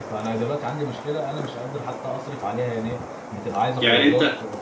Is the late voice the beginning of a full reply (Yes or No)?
No